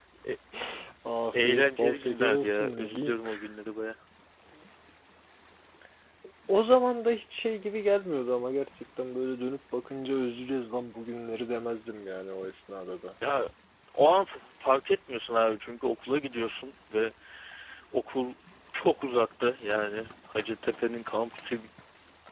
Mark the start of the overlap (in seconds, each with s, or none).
1.3 s